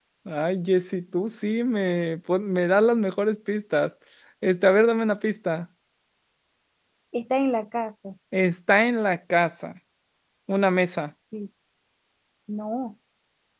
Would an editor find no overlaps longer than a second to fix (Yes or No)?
Yes